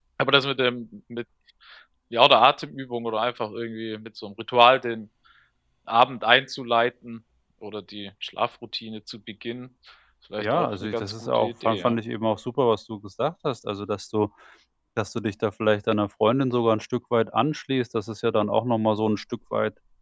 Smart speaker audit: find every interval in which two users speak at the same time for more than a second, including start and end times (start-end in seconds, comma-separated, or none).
10.4-12.0